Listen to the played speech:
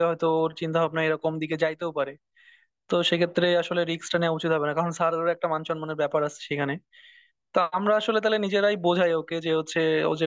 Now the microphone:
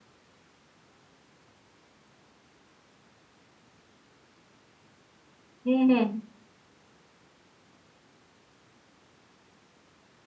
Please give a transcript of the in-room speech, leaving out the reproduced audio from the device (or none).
হুম হুম